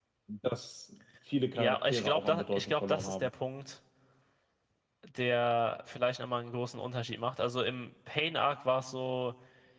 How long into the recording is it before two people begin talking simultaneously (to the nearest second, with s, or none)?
2 s